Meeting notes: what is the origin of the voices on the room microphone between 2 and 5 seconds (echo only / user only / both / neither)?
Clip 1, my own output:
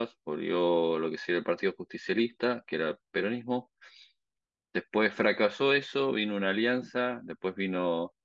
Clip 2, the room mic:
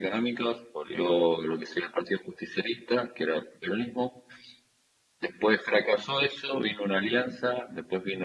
echo only